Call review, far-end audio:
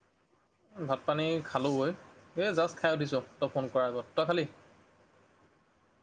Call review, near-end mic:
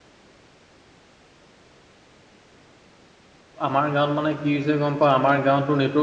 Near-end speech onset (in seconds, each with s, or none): 3.7 s